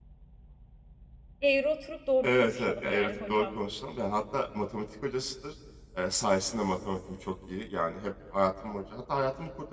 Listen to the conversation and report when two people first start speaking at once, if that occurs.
2 s

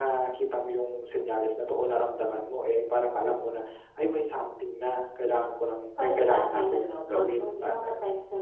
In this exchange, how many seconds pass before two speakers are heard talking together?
6 s

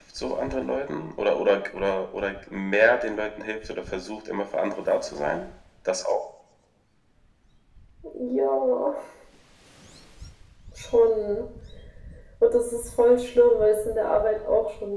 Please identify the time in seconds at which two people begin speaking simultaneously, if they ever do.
none

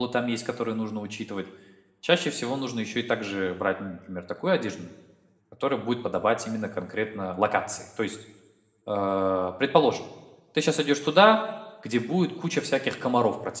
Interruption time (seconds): none

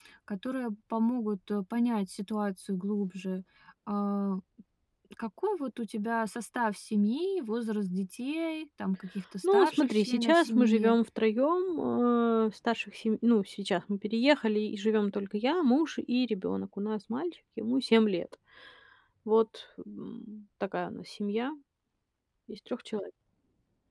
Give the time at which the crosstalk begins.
9 s

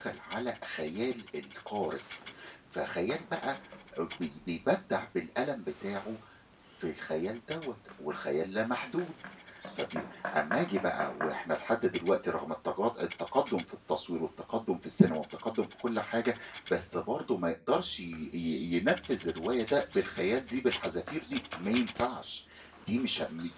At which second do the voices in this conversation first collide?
none

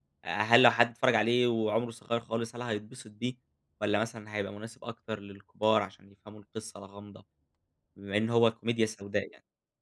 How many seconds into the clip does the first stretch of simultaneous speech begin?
none

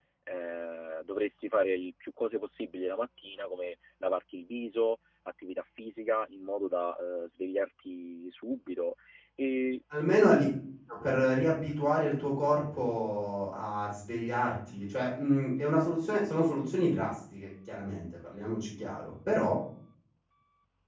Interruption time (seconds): none

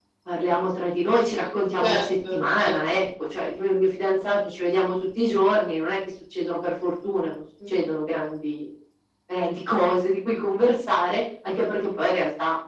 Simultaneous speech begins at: 2 s

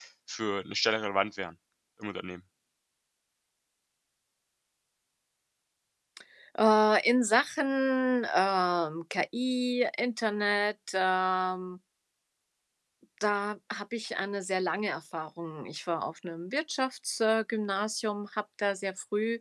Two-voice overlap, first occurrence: none

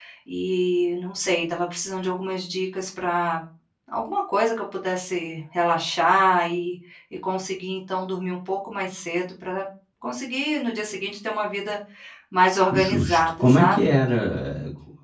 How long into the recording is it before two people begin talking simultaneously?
13 s

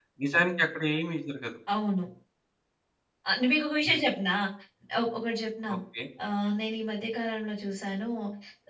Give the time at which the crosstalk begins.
none

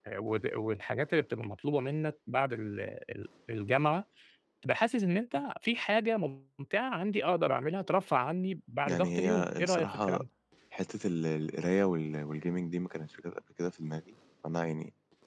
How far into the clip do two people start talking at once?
9 s

